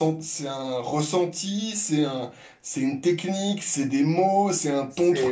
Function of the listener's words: taking over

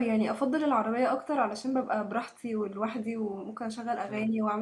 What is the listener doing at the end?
listening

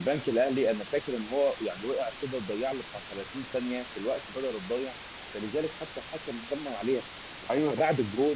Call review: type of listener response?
listening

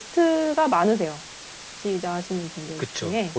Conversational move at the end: taking over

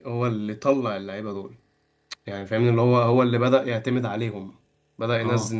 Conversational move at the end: listening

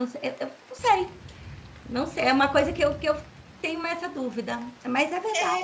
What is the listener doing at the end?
taking over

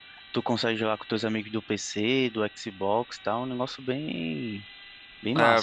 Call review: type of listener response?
taking over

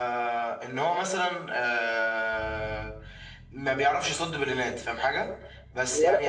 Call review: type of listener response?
taking over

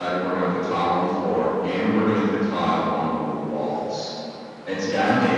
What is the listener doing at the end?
listening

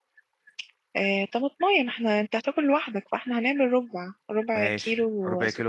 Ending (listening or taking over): taking over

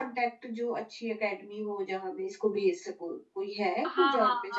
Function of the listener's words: taking over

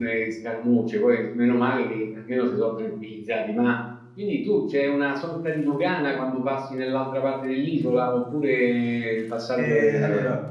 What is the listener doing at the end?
taking over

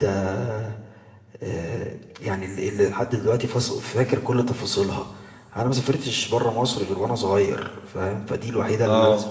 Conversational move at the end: listening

